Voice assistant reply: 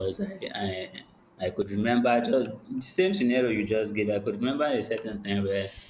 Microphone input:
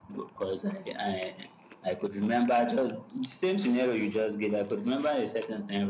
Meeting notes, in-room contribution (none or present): none